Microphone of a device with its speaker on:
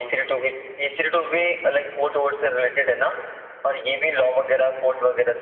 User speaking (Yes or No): No